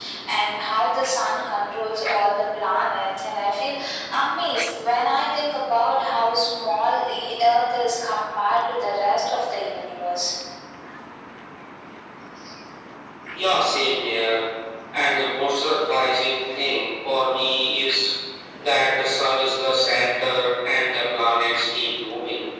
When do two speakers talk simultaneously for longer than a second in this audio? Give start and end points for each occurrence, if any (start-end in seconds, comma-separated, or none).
none